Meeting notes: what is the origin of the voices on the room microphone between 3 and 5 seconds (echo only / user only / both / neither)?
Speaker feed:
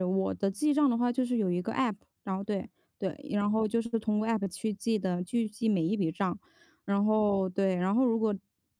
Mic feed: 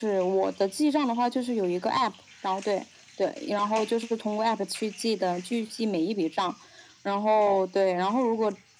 echo only